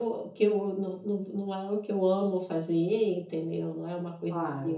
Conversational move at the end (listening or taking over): listening